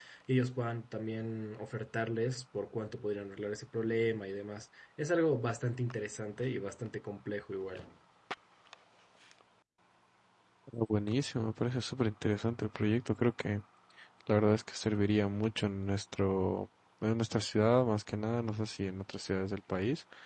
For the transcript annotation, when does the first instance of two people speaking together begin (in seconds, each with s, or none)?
none